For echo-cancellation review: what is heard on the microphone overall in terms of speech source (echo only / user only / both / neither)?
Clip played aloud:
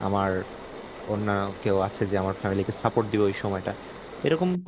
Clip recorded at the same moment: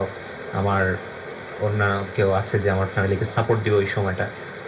echo only